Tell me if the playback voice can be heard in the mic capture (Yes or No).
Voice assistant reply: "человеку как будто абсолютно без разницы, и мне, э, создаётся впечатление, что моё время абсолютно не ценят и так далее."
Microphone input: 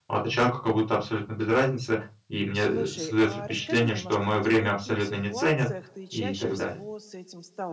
Yes